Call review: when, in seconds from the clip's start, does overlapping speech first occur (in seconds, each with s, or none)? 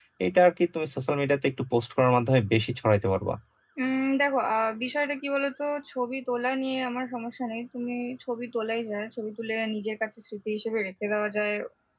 none